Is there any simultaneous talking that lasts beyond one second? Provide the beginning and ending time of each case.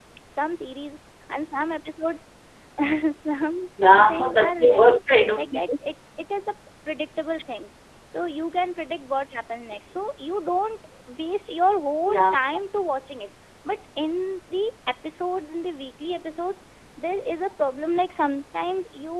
3.8-5.0

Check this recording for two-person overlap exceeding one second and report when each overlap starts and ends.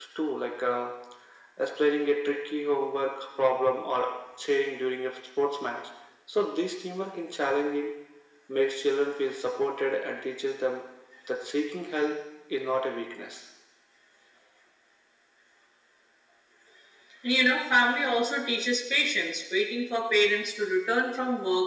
none

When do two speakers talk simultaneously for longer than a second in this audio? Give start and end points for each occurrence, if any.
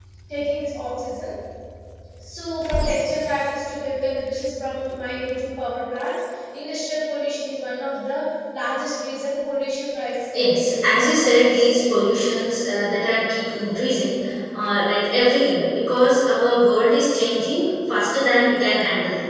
10.3-11.8

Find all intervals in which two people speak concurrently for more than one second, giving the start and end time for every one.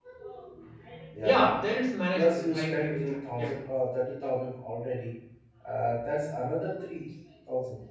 2.1-3.5

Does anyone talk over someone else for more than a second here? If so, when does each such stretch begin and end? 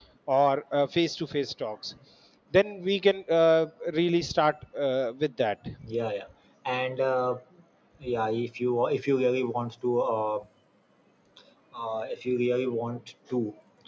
none

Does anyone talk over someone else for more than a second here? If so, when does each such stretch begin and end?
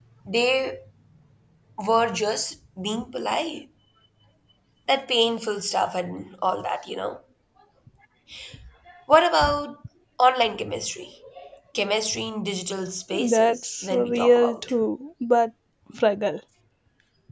13.3-14.6

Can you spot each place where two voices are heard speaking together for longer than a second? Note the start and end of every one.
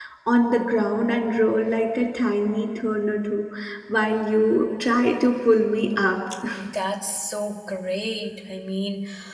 none

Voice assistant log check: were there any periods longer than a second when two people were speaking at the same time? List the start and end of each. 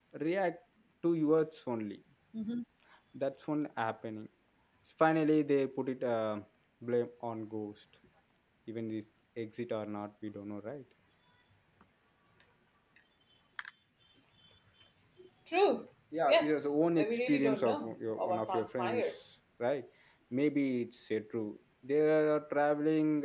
16.3-19.0

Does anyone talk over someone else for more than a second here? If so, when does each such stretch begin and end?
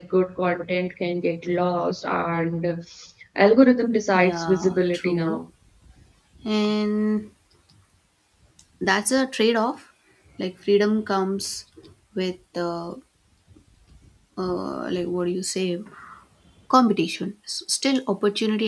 4.1-5.4

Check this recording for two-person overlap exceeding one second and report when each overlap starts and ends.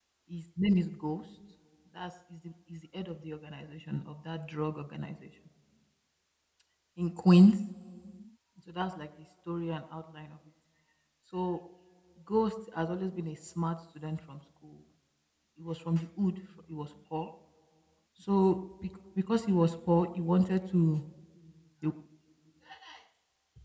none

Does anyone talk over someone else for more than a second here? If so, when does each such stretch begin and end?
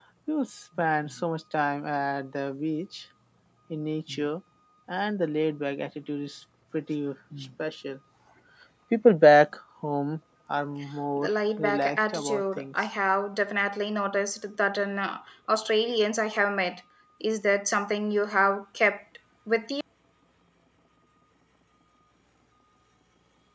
11.2-12.6

